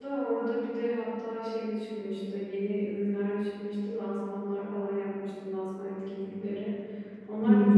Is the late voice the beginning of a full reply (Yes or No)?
No